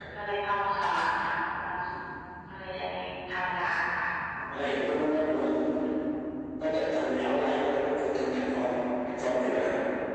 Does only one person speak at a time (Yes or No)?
Yes